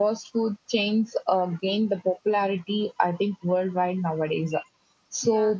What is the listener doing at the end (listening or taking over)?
listening